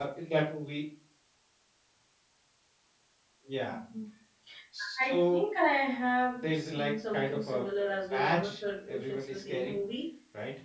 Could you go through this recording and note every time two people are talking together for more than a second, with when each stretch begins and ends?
6.4-9.8

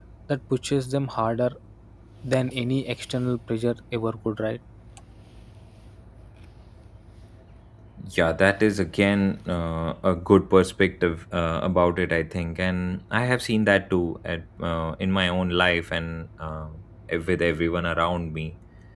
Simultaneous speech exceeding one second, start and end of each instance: none

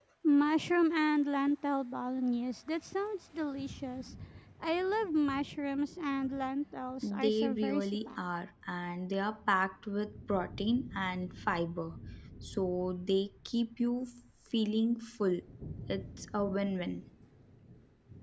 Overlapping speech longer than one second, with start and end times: 7.0-8.3

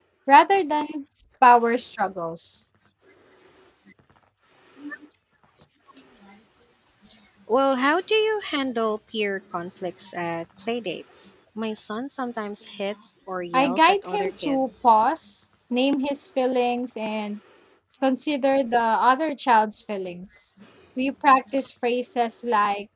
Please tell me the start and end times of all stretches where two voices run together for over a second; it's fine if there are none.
13.5-14.9

